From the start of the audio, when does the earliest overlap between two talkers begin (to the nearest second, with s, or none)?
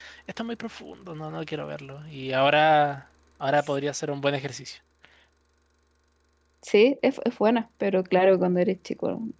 none